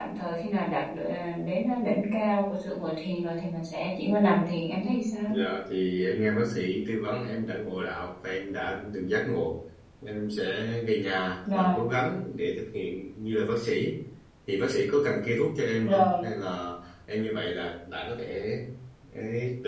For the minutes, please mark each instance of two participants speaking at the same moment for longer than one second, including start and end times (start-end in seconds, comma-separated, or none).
none